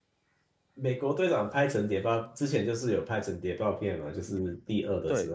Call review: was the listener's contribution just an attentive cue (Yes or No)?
No